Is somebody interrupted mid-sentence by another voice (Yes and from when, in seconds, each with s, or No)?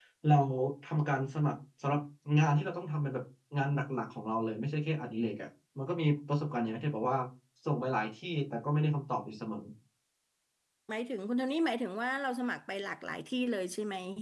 No